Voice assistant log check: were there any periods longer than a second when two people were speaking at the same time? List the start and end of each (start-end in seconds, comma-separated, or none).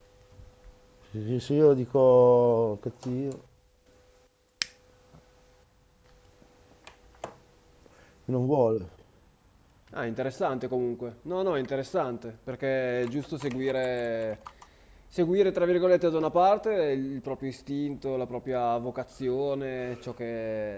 none